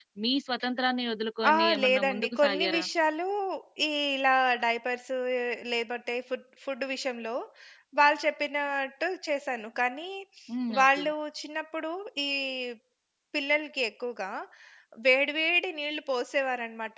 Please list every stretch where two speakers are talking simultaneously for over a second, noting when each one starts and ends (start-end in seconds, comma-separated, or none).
1.5-2.9